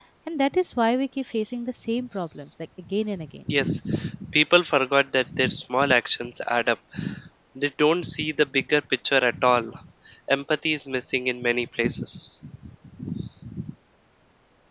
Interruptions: none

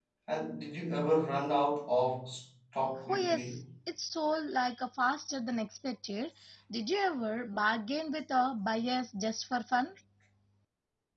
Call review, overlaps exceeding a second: none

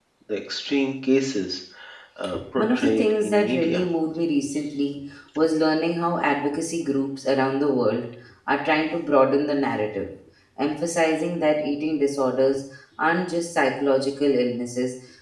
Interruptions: present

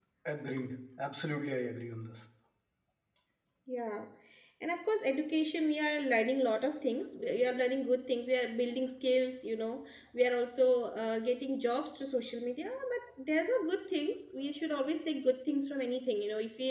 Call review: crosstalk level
none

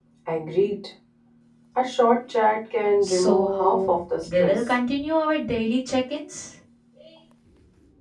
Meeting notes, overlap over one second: present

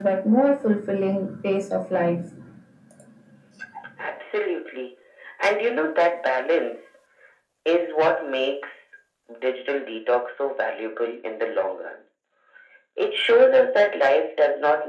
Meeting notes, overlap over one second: none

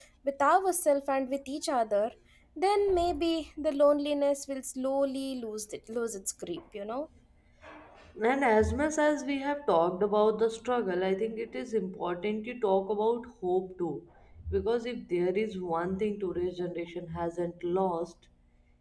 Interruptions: none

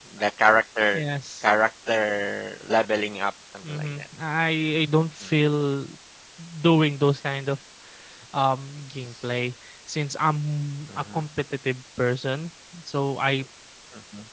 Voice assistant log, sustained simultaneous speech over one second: none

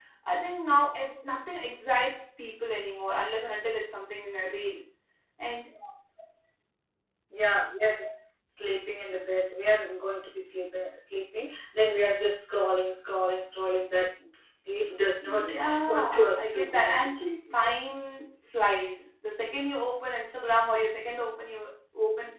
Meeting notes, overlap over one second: present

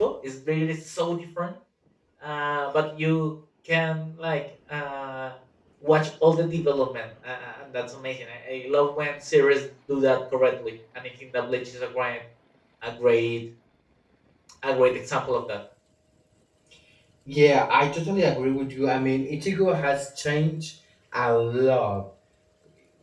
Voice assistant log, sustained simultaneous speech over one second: none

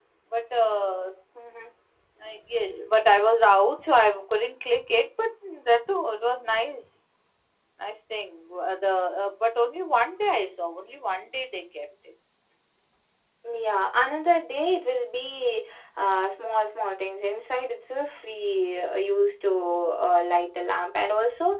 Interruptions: none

